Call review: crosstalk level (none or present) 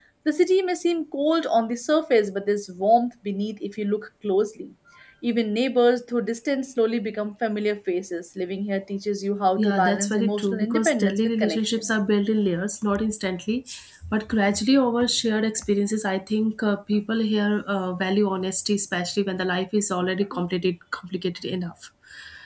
present